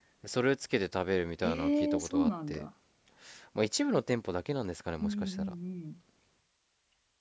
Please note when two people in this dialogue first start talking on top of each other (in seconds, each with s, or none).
1.4 s